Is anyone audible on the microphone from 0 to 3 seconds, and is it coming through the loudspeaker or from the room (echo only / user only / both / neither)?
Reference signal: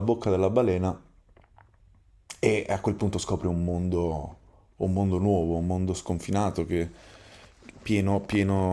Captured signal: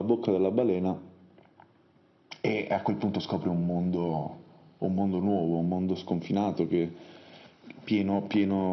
echo only